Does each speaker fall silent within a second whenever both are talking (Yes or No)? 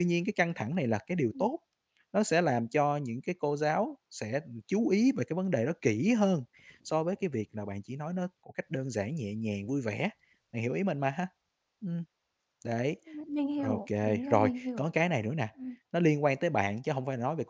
No